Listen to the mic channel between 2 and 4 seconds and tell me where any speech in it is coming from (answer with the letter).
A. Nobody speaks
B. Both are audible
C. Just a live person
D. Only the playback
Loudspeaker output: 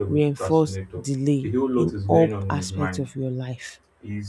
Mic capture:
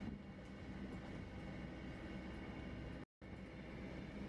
A